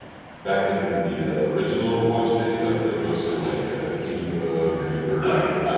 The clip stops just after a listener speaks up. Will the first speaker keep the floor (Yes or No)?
Yes